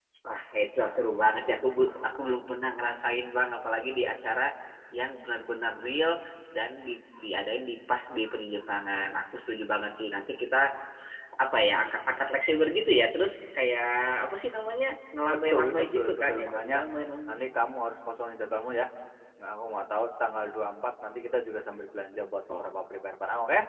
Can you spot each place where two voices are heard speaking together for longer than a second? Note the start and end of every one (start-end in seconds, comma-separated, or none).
15.3-16.8